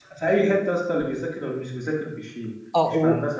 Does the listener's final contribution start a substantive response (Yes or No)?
Yes